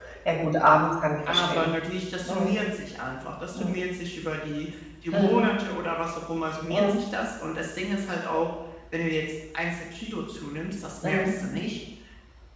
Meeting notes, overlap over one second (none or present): none